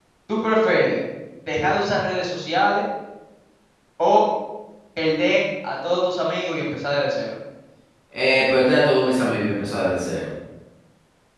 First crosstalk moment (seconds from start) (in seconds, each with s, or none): none